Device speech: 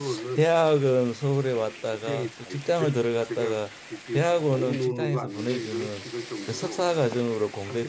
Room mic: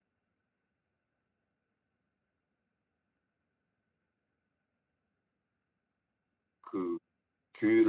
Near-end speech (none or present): present